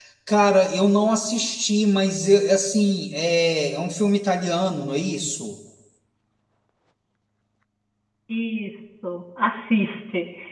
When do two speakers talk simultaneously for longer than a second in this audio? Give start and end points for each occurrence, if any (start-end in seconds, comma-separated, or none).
none